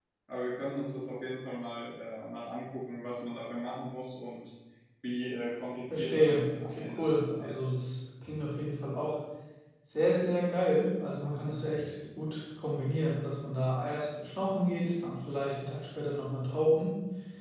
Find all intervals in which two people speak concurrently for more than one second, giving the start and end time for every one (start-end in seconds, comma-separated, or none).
5.9-7.5